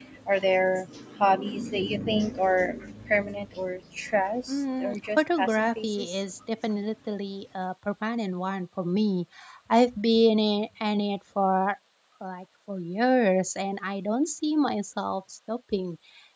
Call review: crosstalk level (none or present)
present